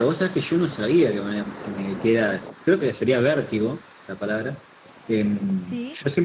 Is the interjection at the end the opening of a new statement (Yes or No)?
No